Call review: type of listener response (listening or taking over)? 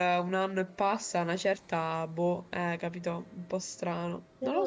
taking over